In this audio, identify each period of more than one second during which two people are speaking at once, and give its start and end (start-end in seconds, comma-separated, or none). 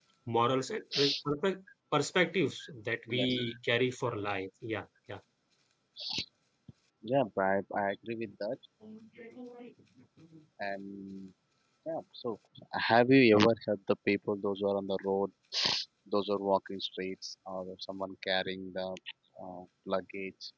none